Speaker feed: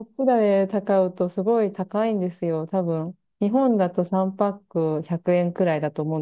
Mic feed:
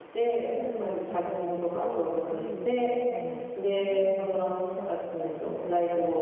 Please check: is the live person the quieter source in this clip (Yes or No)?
No